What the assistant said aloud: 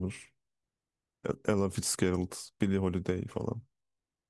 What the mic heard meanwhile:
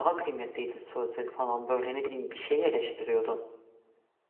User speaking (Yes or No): Yes